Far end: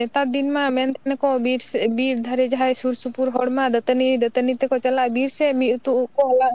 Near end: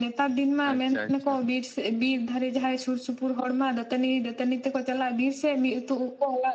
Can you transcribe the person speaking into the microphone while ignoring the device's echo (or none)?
ᱟᱪ ᱪᱷᱟ ᱟᱪ ᱪᱷᱟ